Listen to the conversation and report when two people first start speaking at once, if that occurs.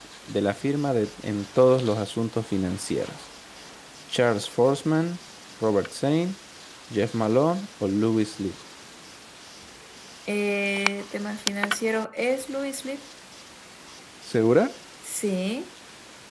none

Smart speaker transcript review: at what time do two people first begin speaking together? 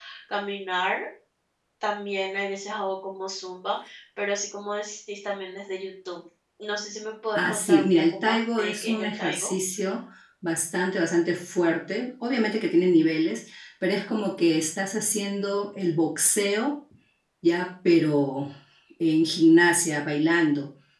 7.3 s

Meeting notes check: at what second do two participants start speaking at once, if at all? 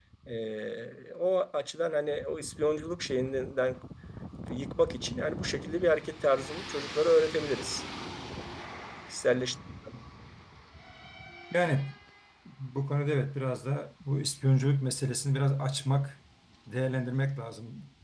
none

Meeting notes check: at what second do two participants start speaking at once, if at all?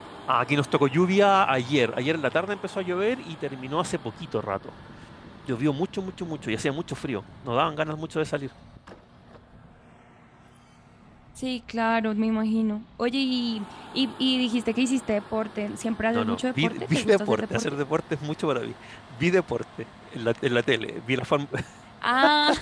16.1 s

